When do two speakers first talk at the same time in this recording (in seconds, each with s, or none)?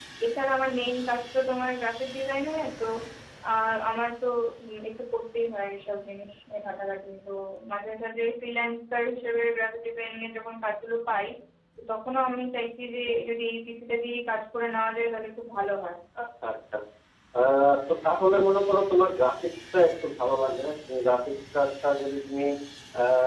none